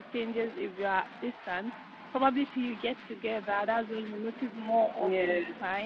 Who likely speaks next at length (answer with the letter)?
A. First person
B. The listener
A